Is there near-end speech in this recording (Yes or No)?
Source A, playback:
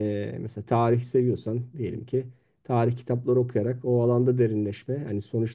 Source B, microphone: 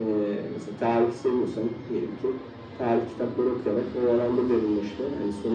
No